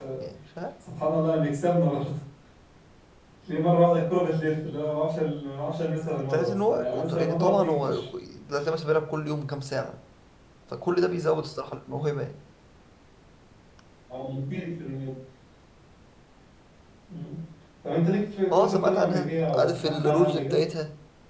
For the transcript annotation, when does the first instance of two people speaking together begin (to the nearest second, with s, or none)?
6 s